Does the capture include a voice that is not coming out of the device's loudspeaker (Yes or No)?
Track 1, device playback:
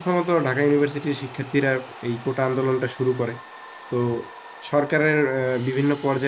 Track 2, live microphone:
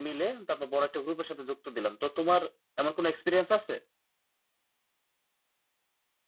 Yes